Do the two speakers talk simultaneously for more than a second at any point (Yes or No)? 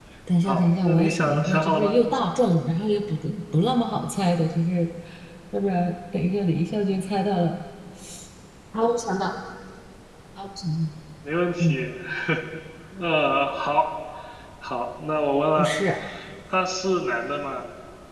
Yes